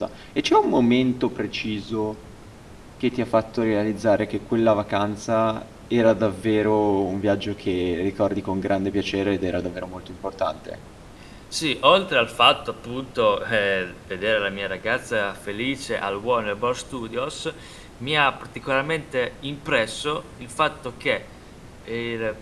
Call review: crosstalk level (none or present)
none